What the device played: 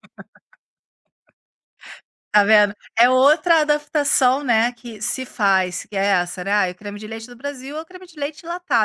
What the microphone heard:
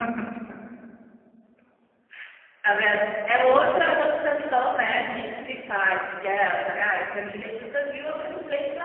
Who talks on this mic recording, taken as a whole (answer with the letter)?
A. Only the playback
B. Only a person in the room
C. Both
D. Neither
A